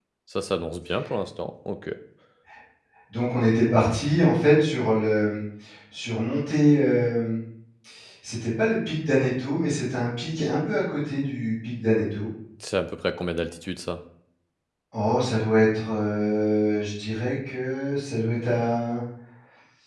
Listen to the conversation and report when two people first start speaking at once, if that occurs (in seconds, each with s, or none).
none